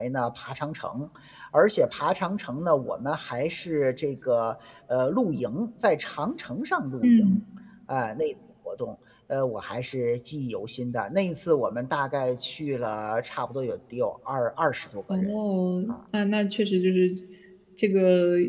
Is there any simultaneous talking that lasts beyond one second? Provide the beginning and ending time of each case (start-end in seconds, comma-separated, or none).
none